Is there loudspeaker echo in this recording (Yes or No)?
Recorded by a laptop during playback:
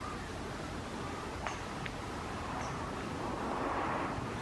No